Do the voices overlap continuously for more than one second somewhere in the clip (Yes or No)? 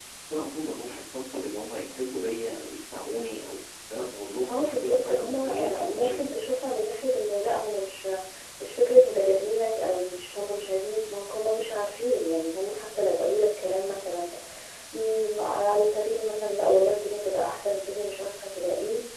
Yes